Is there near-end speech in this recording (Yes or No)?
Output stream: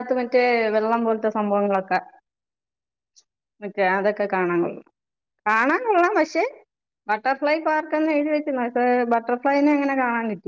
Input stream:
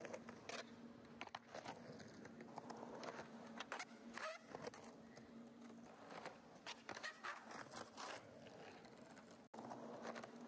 No